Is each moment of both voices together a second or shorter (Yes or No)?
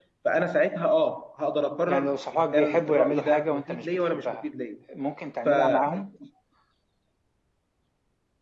No